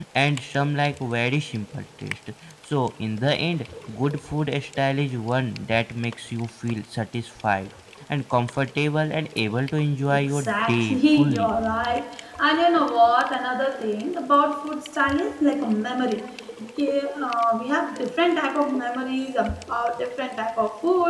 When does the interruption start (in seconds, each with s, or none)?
10.1 s